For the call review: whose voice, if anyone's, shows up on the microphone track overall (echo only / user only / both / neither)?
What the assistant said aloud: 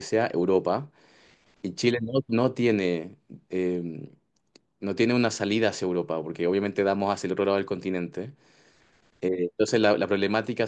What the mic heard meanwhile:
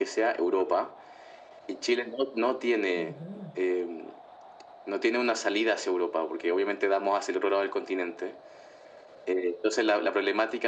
both